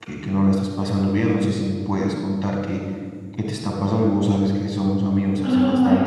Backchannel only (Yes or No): Yes